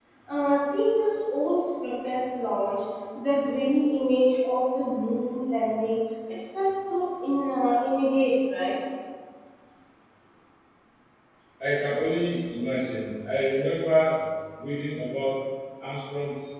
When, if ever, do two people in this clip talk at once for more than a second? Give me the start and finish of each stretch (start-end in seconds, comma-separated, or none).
none